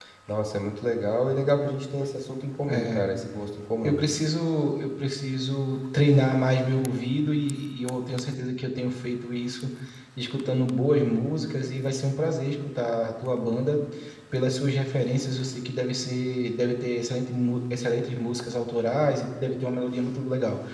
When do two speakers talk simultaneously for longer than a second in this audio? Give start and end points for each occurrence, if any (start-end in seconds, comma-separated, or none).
none